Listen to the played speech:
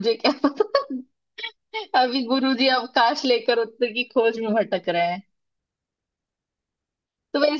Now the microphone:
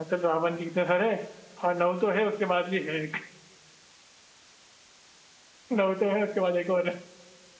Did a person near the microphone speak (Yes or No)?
Yes